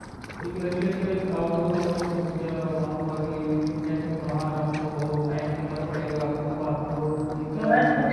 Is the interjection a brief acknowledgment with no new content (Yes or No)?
No